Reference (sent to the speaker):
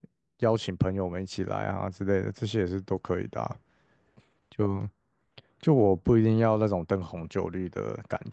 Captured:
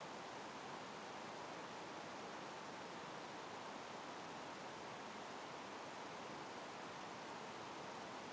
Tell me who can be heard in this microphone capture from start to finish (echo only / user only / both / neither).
neither